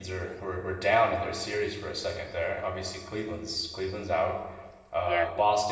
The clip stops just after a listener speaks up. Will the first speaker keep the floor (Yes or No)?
Yes